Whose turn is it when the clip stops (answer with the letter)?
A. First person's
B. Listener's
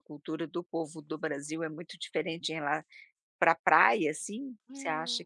B